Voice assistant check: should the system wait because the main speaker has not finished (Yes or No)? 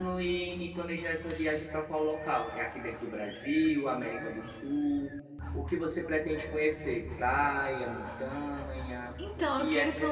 No